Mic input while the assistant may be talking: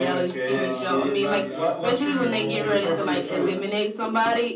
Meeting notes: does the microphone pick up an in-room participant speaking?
Yes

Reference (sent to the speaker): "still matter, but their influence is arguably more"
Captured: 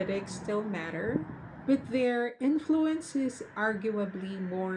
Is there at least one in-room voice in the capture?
No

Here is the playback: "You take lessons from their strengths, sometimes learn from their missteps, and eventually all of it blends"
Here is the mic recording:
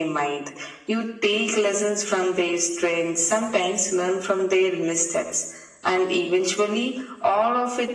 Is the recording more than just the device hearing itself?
No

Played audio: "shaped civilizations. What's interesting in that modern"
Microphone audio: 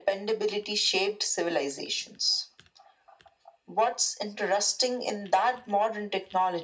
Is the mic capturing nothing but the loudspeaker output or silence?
Yes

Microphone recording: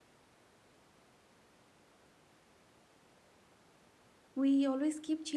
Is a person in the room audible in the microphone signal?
Yes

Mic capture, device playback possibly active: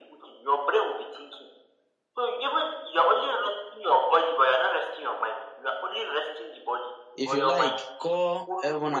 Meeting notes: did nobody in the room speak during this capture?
No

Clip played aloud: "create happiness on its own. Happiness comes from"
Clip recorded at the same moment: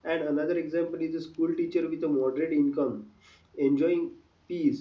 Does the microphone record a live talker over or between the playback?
Yes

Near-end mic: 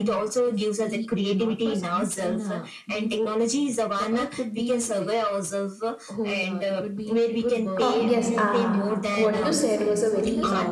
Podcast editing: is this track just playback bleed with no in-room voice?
No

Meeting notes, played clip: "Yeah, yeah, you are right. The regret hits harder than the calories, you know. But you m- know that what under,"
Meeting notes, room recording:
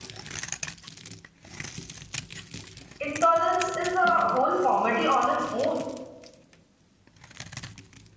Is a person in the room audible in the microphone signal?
Yes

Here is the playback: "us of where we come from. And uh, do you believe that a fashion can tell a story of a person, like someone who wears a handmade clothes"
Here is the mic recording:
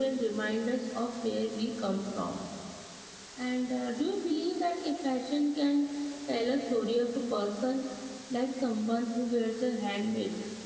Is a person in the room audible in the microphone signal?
No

